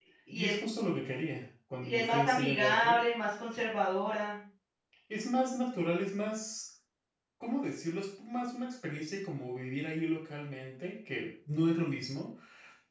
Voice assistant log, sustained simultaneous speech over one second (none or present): present